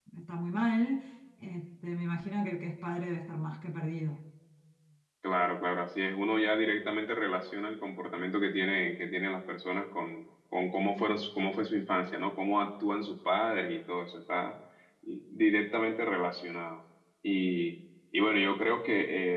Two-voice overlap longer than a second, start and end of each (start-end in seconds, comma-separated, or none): none